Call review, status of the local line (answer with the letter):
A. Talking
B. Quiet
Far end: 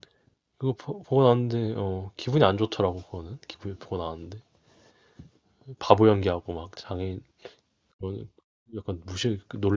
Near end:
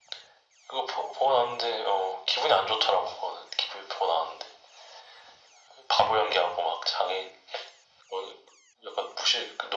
B